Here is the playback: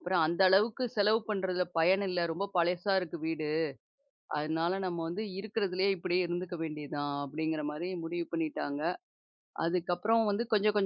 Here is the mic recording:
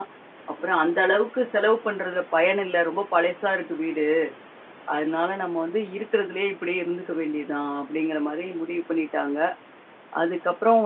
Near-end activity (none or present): none